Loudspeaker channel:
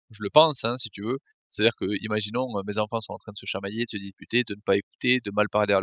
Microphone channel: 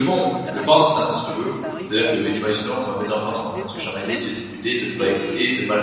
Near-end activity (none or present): present